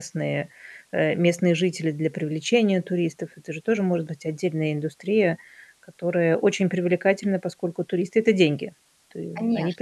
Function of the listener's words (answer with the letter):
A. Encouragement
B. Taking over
B